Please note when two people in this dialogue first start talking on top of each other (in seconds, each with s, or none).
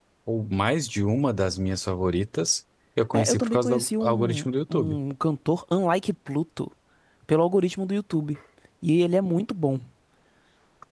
3.1 s